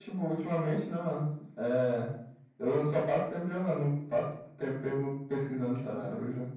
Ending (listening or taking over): taking over